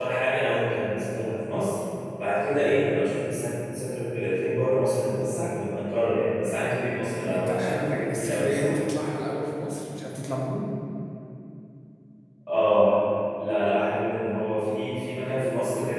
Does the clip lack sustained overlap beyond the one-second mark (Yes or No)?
No